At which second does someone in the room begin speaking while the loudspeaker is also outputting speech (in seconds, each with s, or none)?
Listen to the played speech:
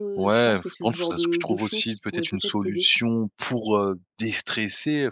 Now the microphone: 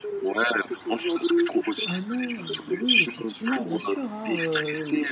1.9 s